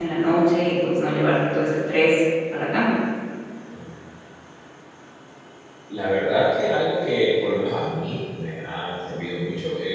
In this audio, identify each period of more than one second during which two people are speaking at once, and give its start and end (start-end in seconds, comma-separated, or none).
none